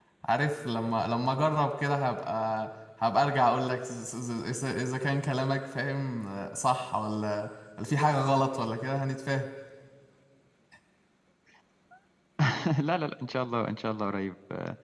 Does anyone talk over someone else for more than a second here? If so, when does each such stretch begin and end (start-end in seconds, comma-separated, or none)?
none